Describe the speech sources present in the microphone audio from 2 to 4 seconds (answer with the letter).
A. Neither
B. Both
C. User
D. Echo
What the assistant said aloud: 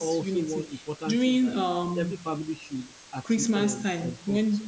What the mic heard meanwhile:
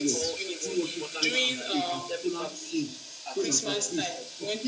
B